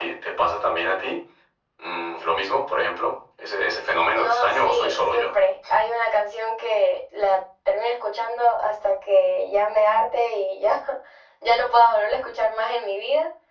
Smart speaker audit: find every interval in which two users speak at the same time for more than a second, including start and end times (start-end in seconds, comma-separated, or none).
4.1-5.3